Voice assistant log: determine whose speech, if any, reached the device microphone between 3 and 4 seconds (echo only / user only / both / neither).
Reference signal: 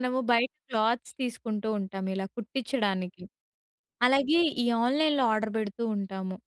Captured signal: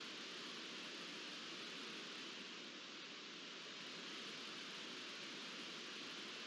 neither